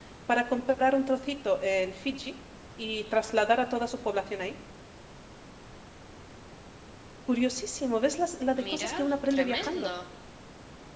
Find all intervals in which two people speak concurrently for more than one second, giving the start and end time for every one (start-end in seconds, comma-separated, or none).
8.6-9.9